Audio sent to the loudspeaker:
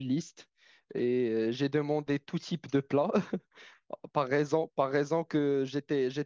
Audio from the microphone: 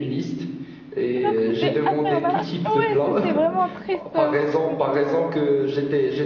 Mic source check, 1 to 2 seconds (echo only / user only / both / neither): both